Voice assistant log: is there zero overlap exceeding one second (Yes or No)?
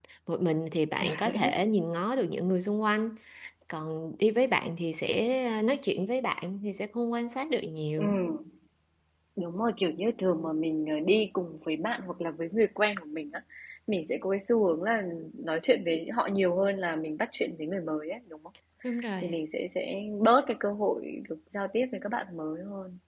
Yes